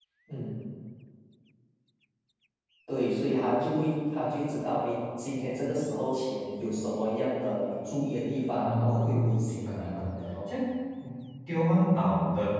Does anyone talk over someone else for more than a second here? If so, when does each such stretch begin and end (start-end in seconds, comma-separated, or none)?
8.6-10.1